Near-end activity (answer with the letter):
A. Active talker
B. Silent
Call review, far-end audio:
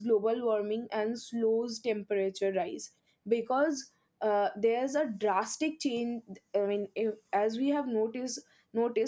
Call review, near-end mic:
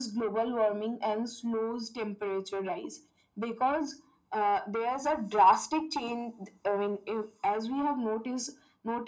B